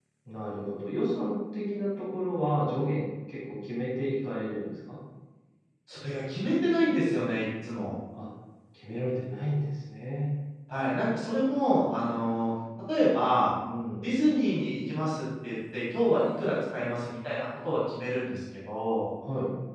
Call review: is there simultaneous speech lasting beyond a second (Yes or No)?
No